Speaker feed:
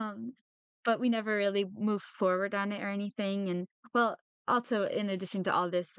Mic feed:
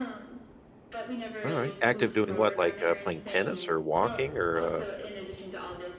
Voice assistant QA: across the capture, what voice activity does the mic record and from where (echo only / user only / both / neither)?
both